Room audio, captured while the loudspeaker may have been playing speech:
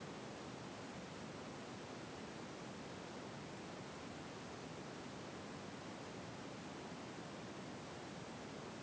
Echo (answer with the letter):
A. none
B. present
A